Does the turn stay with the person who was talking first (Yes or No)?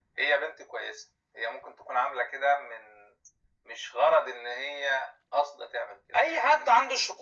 No